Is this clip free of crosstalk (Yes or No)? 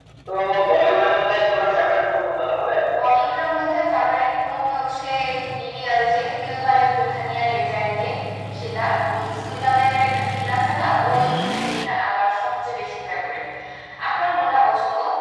Yes